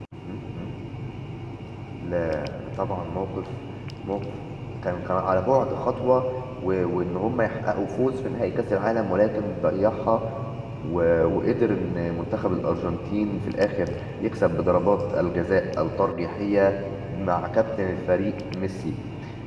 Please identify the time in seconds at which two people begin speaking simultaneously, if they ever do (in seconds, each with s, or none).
none